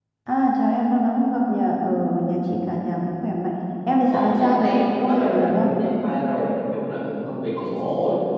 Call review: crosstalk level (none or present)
present